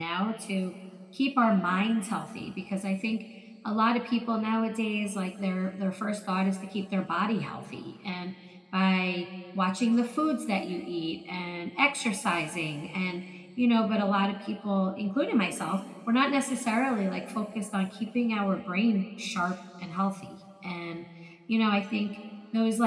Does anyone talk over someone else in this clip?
No

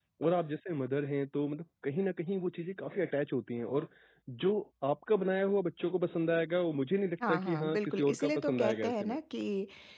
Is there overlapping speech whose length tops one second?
Yes, from 7.2 s

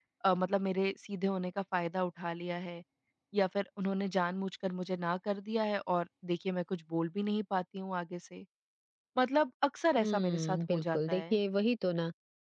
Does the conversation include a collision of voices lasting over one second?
Yes, from 10.0 s

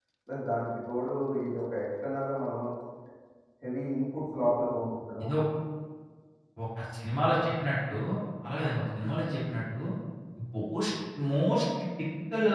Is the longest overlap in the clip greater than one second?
No

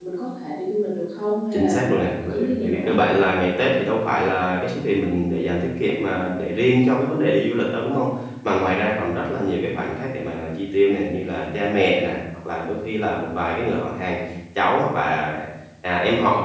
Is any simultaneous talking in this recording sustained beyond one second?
Yes, from 1.5 s

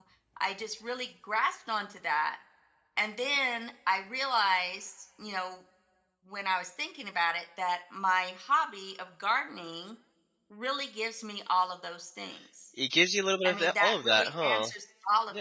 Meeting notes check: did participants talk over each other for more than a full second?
Yes, from 13.4 s

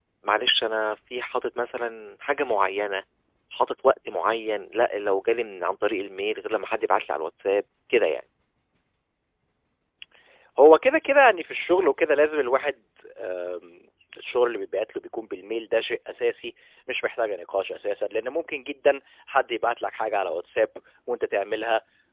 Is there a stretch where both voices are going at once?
No

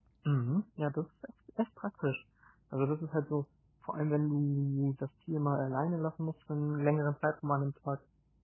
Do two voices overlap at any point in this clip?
No

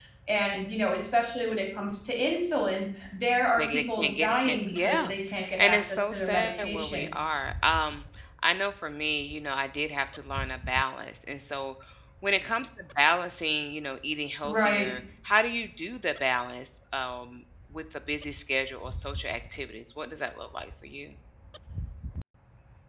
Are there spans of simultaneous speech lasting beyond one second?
Yes, from 3.6 s

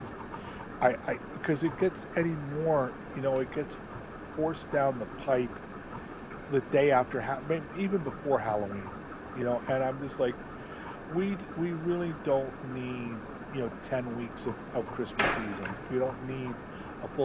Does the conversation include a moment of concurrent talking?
No

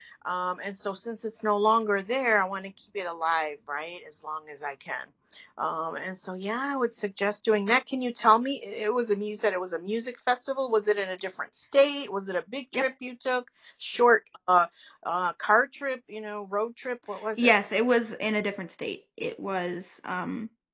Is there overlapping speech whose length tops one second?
No

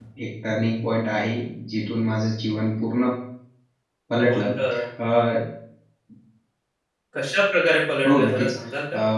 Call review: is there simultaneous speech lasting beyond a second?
No

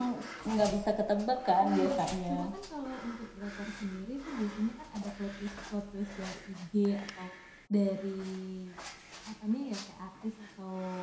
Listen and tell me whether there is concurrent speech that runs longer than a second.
No

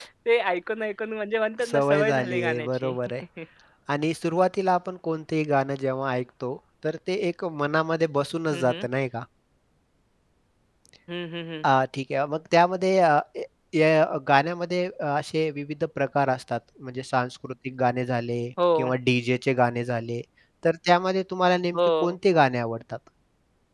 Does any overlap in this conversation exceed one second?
Yes, from 1.6 s

